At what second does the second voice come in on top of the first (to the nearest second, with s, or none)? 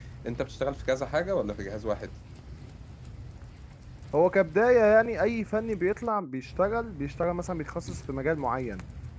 none